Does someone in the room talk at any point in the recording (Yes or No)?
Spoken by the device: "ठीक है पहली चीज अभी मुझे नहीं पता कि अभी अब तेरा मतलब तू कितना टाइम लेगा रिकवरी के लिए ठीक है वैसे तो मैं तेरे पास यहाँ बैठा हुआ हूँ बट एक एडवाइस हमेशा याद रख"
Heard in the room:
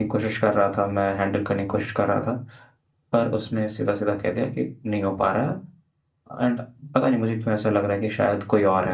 Yes